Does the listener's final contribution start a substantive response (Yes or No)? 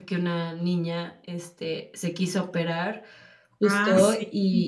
No